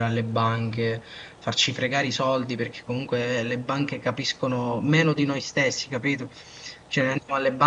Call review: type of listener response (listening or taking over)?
listening